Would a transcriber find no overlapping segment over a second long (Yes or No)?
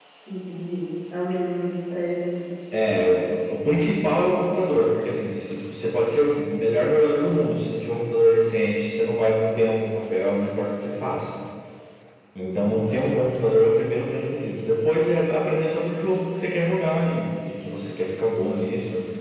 Yes